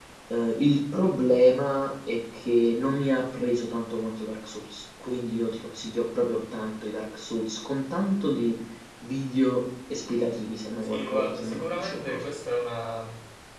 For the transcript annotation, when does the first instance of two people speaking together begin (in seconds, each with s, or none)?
10.8 s